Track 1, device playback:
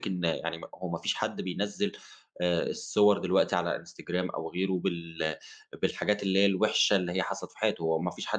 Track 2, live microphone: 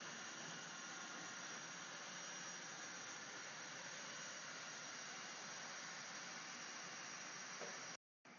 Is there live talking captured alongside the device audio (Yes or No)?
No